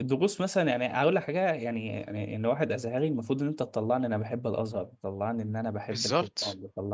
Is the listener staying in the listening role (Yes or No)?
Yes